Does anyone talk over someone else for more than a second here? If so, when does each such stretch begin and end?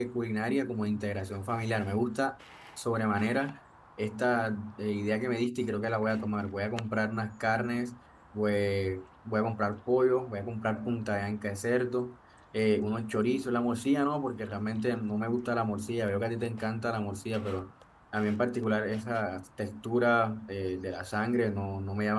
none

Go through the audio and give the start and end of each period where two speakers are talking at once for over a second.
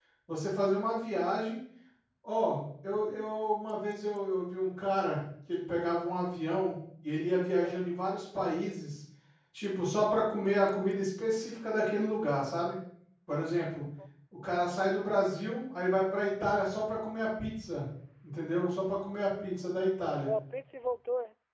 none

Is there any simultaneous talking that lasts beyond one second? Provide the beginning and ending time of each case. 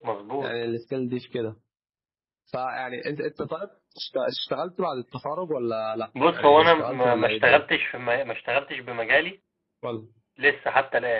6.3-7.6

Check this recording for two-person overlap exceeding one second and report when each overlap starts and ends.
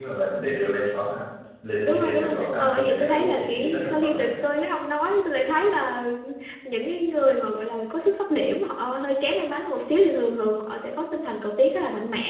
1.8-4.3

